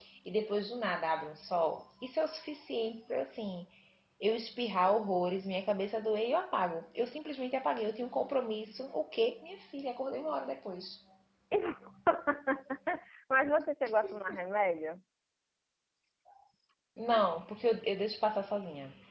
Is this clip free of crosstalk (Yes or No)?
Yes